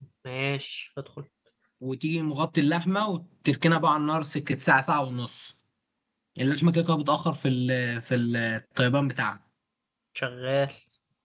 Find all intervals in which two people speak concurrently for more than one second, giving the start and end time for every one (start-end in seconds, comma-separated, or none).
none